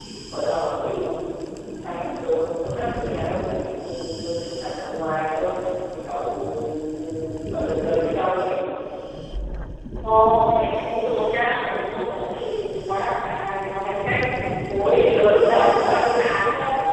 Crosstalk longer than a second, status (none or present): present